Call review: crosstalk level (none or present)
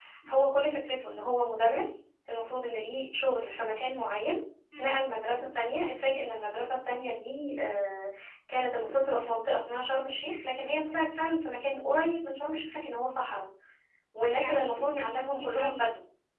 present